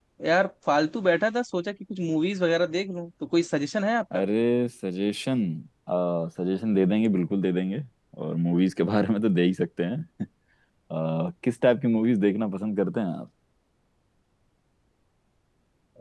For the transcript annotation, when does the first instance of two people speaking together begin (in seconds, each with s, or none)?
none